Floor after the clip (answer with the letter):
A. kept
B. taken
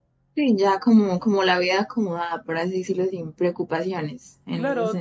B